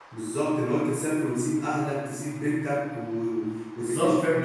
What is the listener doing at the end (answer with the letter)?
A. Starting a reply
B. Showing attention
A